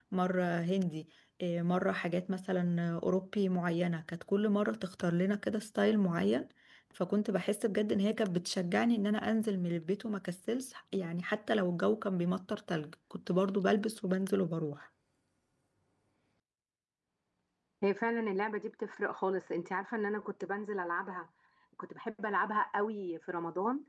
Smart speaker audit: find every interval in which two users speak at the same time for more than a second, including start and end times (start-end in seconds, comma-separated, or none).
none